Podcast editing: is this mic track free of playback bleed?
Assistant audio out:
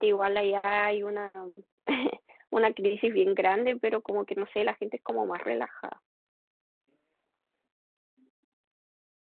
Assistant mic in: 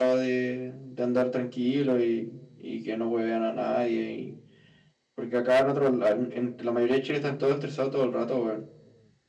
Yes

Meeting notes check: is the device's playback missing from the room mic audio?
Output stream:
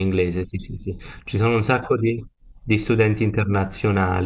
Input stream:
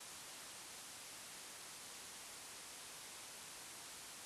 Yes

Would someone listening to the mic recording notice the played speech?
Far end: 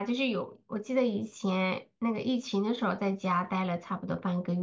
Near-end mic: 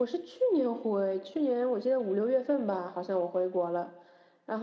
No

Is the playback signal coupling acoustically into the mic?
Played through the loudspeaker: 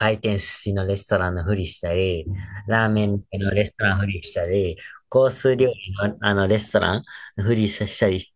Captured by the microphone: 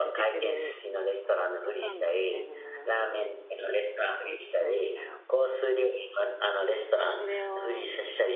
Yes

